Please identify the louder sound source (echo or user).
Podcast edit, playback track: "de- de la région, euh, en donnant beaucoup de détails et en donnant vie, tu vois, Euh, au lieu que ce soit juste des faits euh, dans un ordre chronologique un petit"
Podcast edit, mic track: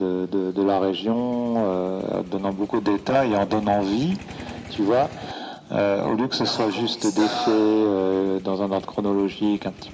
echo